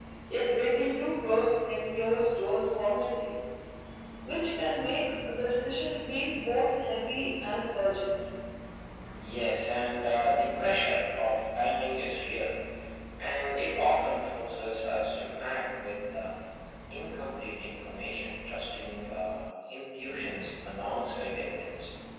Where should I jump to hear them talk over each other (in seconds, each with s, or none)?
none